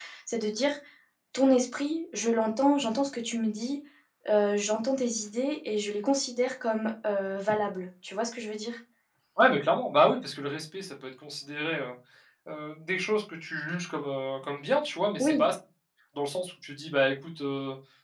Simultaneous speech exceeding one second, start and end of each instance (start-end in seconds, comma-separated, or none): none